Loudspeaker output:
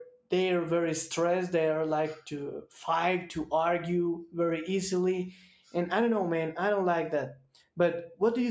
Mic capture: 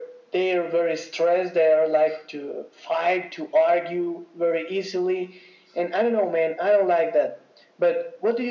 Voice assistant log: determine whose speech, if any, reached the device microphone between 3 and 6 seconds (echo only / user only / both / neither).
echo only